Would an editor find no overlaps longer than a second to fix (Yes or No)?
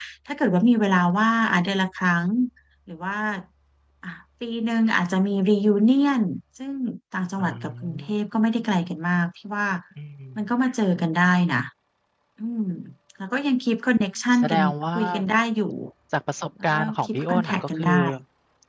No